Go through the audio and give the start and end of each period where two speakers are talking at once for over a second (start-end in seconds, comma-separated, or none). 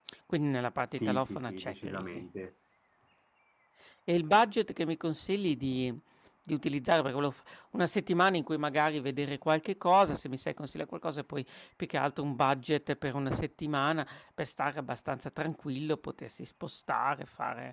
1.0-2.2